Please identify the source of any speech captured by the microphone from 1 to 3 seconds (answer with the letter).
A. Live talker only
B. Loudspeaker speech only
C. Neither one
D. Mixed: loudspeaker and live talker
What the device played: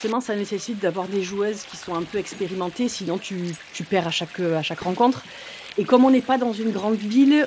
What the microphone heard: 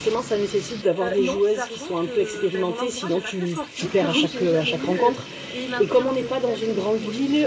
D